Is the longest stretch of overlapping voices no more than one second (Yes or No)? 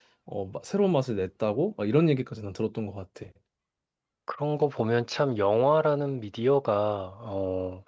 Yes